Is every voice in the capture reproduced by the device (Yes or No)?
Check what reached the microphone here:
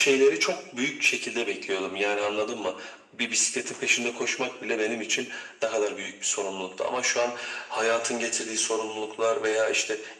Yes